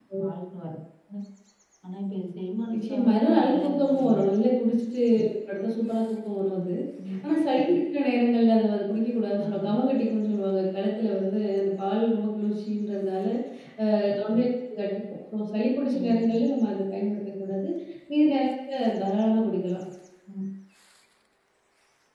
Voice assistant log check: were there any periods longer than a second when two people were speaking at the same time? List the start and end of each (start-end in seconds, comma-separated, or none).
2.7-4.2